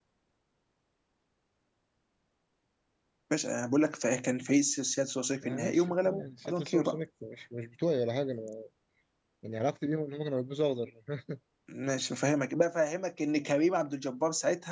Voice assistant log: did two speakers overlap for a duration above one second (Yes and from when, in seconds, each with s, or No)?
Yes, from 5.4 s